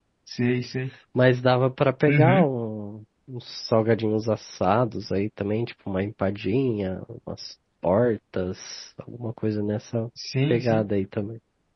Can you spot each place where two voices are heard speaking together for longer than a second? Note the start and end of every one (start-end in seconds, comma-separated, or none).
none